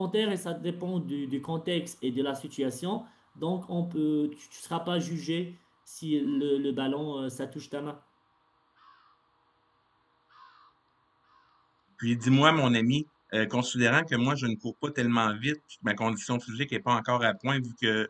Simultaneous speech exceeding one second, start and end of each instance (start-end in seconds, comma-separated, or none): none